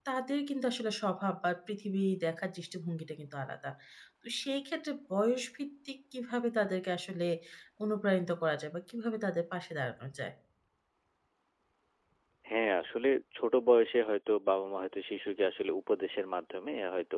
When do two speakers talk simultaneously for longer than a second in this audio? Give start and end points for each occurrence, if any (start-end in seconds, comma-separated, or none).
none